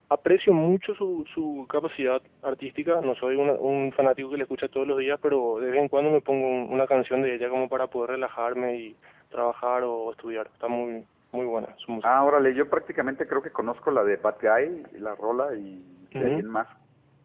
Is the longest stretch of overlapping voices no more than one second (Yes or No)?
Yes